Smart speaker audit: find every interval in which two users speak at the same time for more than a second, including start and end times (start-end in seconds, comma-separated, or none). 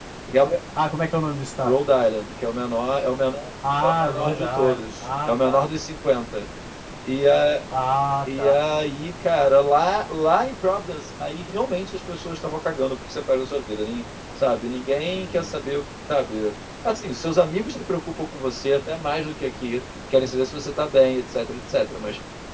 3.8-5.6